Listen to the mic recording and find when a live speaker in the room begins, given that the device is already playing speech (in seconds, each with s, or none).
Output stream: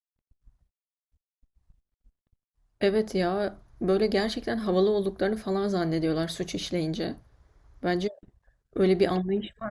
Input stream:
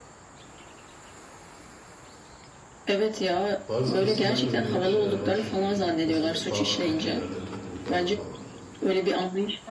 3.7 s